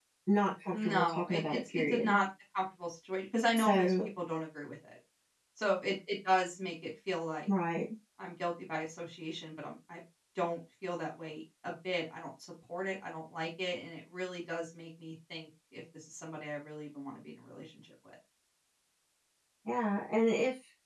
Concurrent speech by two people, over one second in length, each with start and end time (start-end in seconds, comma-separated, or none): 0.7-2.2